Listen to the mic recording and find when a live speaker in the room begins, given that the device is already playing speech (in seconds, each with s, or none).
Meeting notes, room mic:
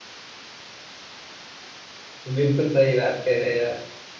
2.3 s